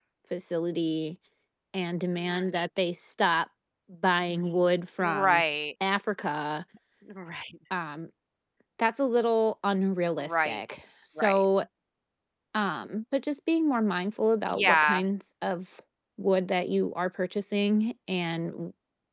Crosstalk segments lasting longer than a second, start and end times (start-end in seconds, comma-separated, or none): none